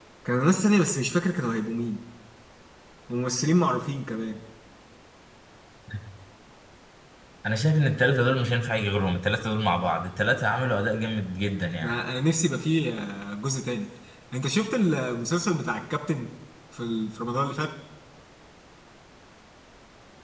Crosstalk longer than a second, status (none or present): none